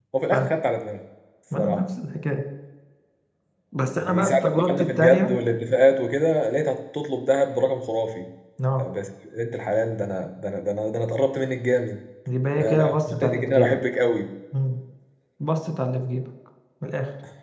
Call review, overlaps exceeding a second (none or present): present